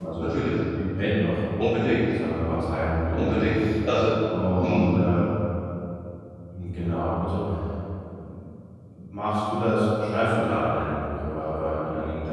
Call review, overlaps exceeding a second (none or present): none